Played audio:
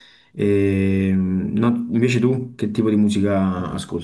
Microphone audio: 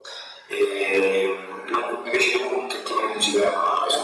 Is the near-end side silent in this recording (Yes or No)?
Yes